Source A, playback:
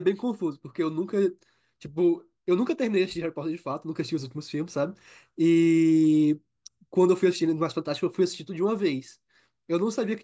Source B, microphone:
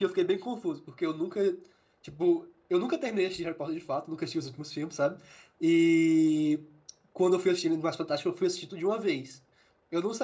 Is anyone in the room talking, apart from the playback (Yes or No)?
No